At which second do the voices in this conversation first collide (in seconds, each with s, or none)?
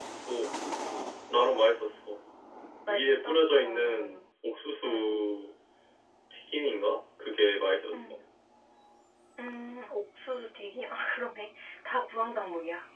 2.9 s